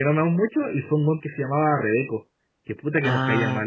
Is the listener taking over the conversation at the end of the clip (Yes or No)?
Yes